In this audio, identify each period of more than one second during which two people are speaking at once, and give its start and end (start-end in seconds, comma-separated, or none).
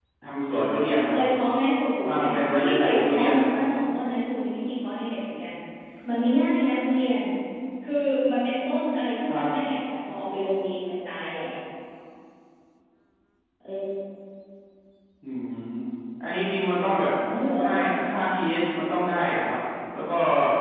2.0-3.3